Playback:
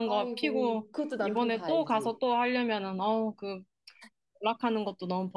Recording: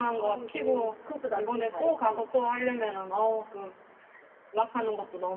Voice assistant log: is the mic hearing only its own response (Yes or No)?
Yes